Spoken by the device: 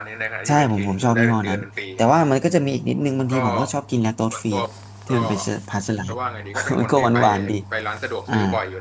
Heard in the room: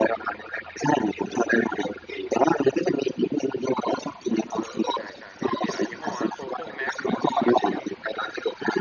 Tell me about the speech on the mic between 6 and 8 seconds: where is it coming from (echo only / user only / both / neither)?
both